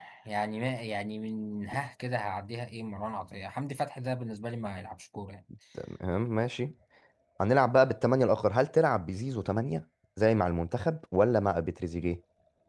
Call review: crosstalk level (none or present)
none